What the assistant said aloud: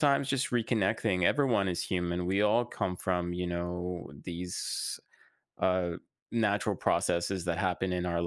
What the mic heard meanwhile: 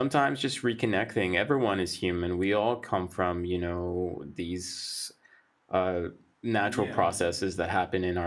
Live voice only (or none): yeah.